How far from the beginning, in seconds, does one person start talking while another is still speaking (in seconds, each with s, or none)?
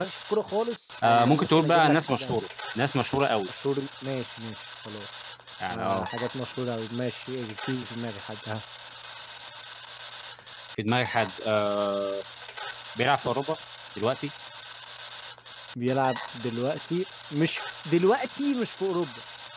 1.0 s